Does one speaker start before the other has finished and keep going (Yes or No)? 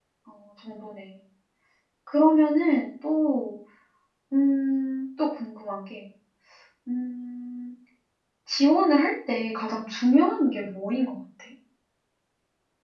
No